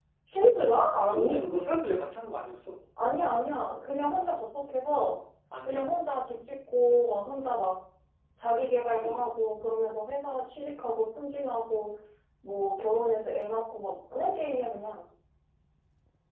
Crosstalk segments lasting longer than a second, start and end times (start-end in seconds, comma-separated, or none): none